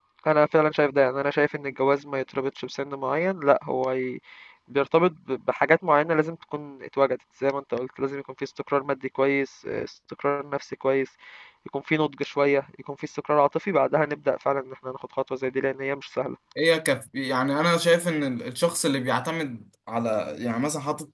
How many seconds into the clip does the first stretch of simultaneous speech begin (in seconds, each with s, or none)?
none